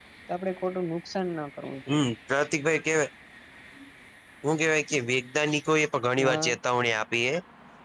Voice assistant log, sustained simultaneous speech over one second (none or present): none